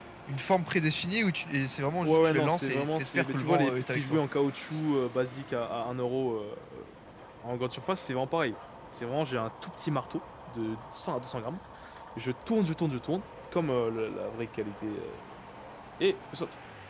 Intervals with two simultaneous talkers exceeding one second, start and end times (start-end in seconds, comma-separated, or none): 2.0-4.2